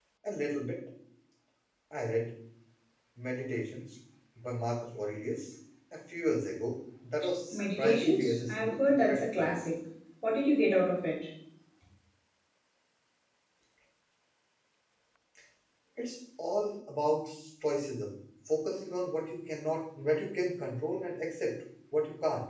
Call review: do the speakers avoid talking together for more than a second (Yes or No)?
No